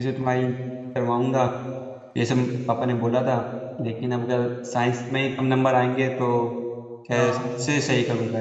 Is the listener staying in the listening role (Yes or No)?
Yes